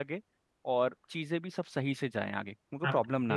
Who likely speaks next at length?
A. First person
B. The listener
B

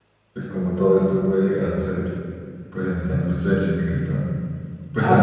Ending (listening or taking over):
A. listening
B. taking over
B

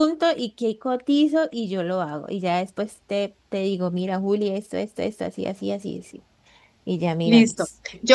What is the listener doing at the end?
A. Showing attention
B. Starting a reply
B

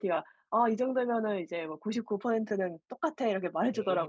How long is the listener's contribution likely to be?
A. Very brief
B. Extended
B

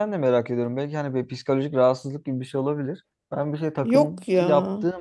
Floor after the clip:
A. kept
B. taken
A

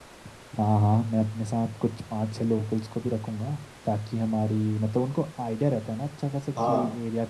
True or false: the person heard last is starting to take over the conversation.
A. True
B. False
B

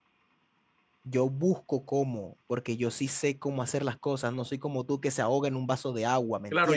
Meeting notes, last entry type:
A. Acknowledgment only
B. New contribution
B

